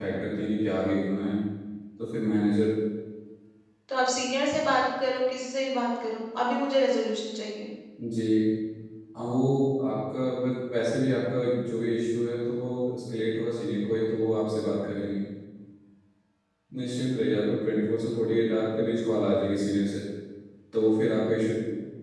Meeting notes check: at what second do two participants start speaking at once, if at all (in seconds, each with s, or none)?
none